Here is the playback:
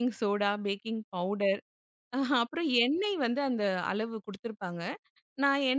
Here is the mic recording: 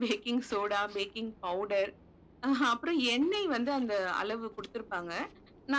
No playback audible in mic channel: No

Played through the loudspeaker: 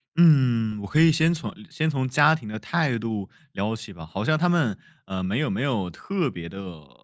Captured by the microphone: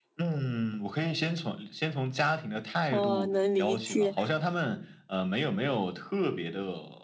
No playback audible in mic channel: No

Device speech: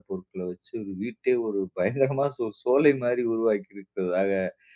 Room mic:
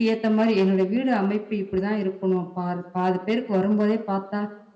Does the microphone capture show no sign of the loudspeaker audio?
Yes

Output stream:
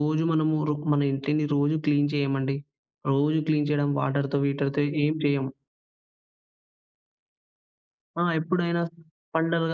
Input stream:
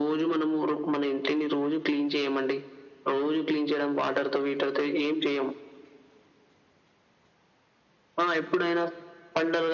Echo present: Yes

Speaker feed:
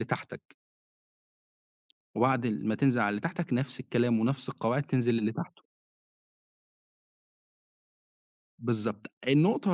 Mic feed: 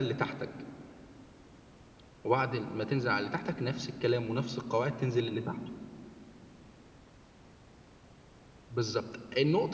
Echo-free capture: No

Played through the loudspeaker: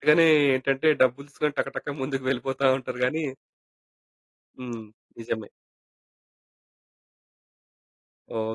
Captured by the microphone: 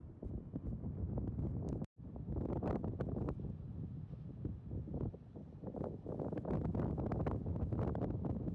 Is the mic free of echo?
Yes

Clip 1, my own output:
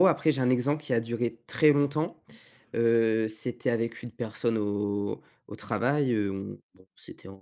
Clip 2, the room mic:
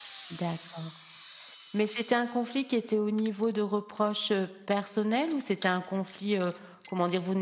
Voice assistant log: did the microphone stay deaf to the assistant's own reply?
Yes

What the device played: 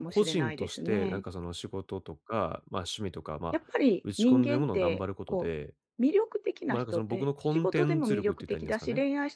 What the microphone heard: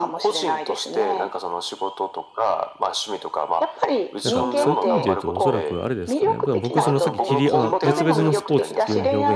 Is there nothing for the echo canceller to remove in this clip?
No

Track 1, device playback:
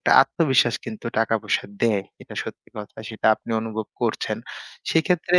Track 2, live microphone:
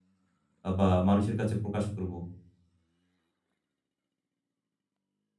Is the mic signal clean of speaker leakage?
Yes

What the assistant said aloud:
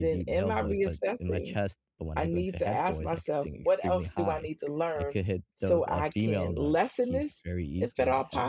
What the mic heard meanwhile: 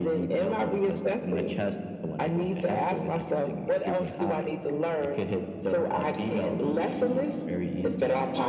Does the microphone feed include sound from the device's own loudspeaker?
Yes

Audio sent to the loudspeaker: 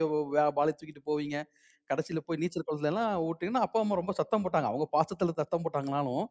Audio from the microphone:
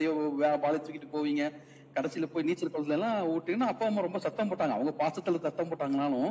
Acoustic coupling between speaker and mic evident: Yes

